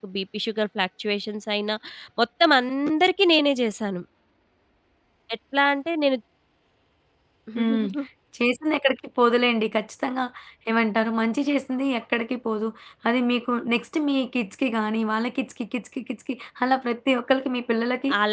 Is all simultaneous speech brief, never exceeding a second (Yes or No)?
Yes